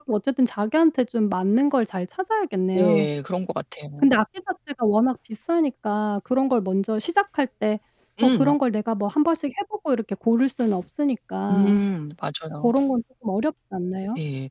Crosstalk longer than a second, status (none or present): none